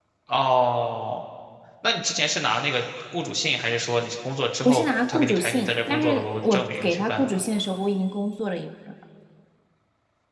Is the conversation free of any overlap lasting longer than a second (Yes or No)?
No